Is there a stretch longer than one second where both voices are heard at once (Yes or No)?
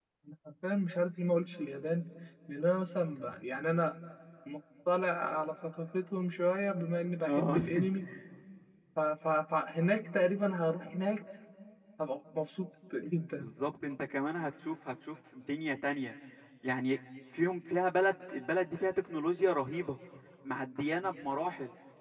No